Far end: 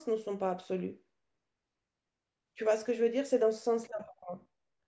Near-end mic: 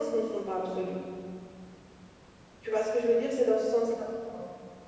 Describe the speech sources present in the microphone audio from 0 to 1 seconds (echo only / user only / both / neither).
echo only